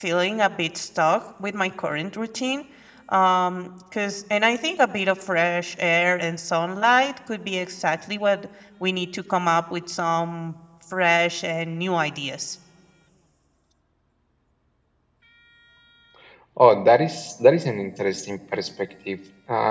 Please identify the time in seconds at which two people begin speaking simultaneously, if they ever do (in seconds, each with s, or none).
none